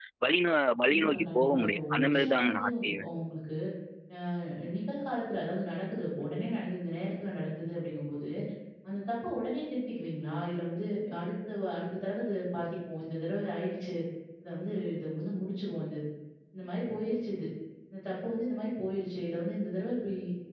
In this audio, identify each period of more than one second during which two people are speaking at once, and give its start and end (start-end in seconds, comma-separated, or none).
0.9-3.1